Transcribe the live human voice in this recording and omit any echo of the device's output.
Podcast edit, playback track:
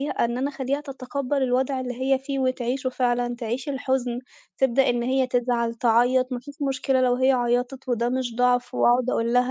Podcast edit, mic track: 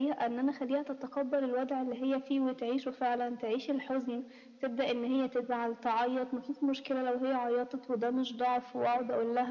none

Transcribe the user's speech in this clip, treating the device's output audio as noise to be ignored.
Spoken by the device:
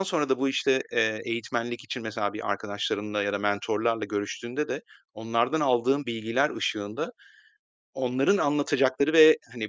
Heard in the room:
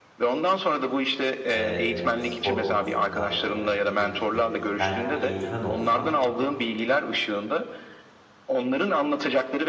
Eee, yani spor konusunda, eee, dediğim gibi belki bir eğitmen olsam,

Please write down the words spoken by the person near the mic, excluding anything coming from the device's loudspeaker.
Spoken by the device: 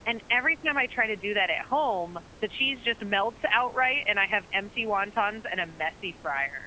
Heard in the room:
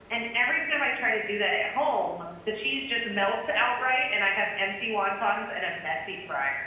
none

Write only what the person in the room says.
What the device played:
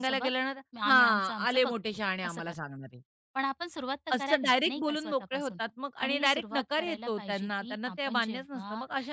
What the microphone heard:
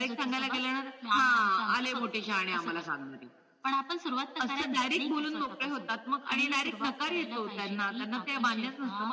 none

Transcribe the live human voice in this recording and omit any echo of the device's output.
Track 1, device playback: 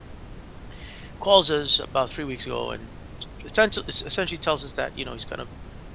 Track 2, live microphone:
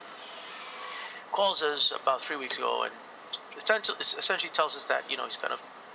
none

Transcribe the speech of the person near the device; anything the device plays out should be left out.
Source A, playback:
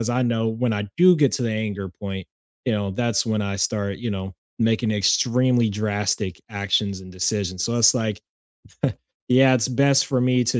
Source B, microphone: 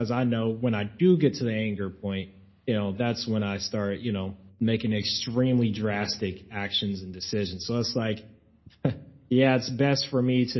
none

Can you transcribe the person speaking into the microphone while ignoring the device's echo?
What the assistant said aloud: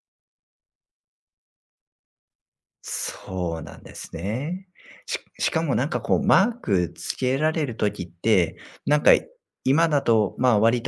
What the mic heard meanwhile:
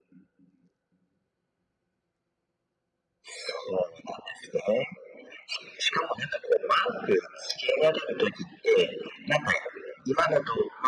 none

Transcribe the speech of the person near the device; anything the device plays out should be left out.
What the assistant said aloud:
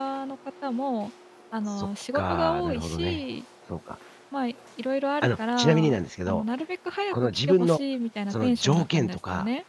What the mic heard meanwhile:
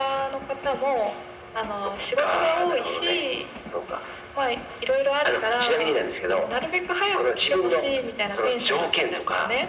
none

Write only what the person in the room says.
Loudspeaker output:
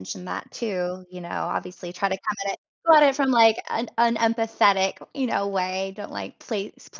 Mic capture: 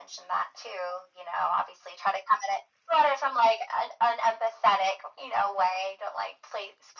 none

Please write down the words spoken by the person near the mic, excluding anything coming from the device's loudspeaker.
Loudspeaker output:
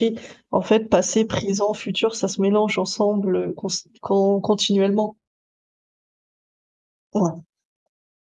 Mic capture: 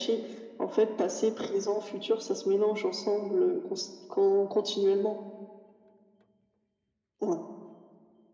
none

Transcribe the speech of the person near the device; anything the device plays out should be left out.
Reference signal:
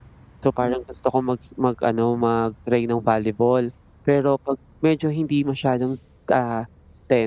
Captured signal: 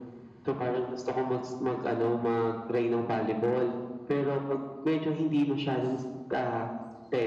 none

